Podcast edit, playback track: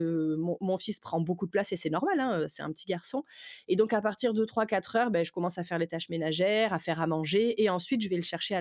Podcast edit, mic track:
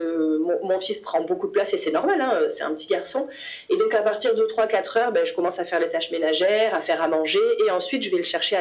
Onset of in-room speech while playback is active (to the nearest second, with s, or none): none